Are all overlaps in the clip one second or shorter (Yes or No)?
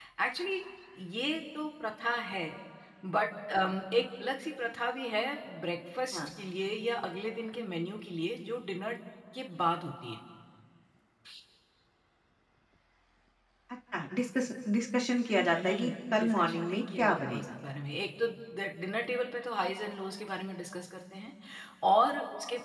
No